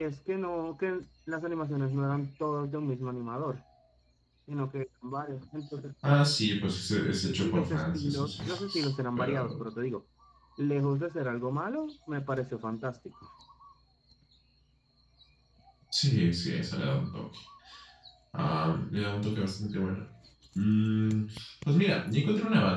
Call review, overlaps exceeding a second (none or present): present